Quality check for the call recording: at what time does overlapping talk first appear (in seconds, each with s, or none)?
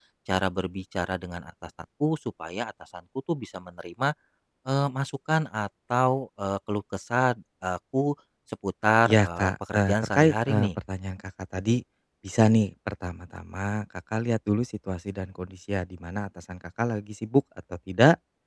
9.0 s